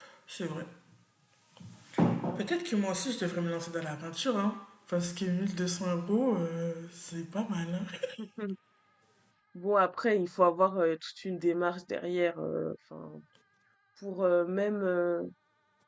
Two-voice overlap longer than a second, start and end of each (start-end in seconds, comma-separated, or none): none